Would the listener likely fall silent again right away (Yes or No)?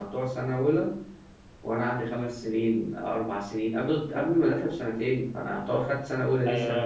No